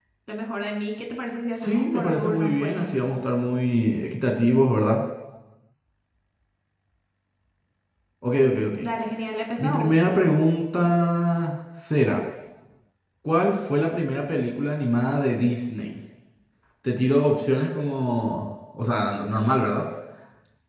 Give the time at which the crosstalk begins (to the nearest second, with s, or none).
2 s